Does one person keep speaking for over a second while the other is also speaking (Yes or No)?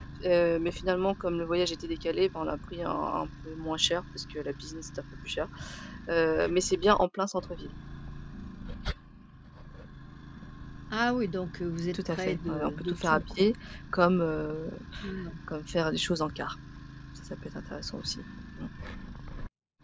Yes